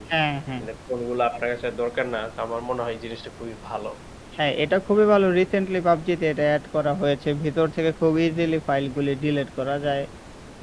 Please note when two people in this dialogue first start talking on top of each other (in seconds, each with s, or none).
none